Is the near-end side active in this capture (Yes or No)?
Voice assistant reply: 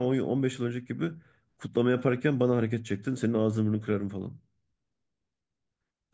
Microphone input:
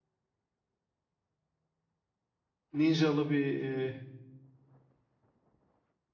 Yes